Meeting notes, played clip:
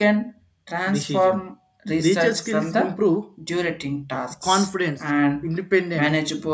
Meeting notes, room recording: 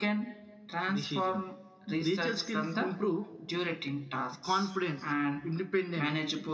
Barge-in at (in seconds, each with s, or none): none